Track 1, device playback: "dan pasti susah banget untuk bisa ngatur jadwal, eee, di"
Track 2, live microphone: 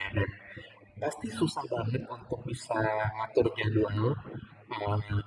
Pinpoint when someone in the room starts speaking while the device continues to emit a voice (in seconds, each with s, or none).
none